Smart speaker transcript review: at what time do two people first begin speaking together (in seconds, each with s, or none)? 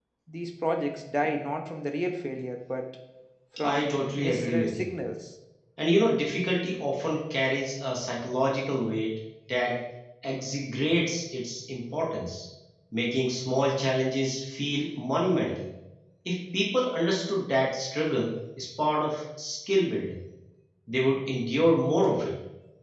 3.6 s